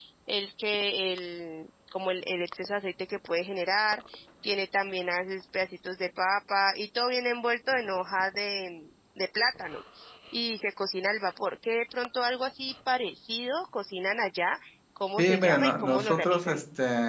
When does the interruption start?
15.2 s

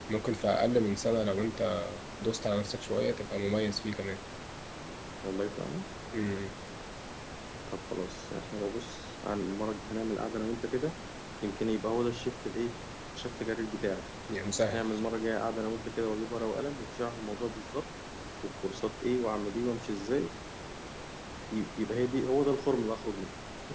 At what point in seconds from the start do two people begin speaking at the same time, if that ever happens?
none

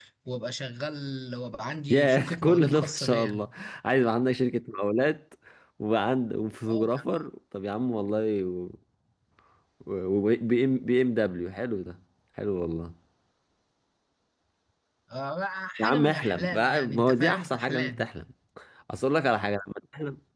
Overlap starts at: 1.9 s

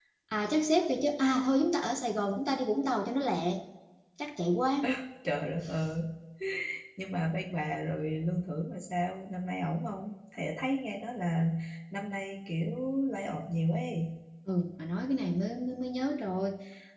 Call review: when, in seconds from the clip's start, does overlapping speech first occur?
none

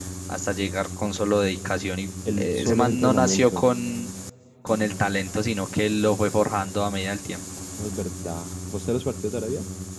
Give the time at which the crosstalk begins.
2.3 s

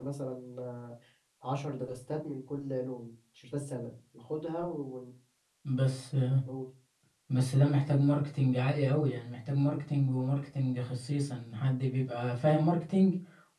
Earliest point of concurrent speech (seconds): none

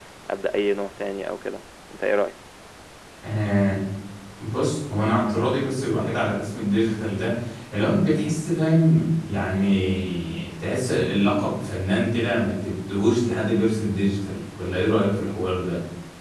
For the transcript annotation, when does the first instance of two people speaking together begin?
none

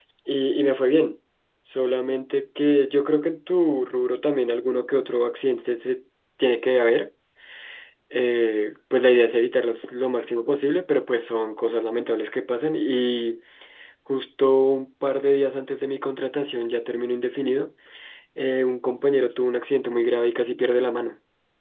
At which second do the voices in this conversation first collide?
none

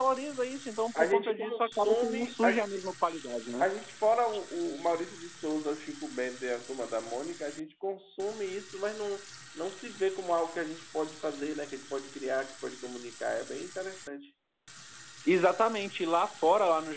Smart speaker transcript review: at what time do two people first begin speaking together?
0.9 s

